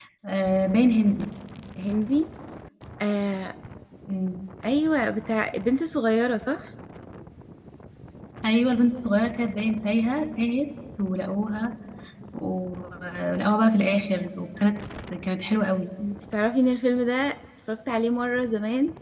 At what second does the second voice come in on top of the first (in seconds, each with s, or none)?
none